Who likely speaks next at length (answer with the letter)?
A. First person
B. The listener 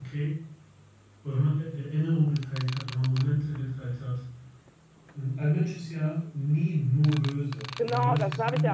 B